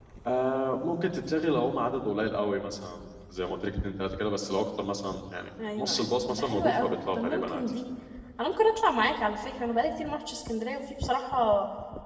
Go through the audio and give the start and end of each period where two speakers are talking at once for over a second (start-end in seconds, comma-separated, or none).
5.8-7.7